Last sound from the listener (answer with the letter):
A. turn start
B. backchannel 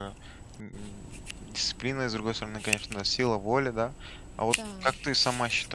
B